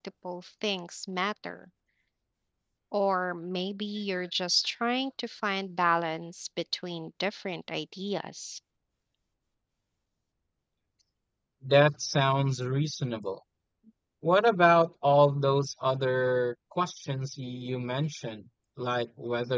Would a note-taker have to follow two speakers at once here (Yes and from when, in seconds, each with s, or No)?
No